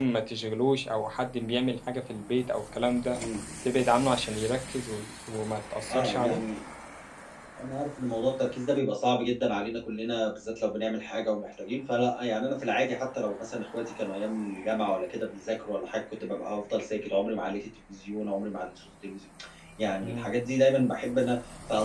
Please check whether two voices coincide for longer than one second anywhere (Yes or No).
No